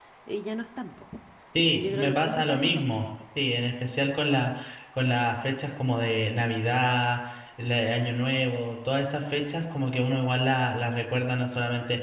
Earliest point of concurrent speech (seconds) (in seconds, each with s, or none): 1.7 s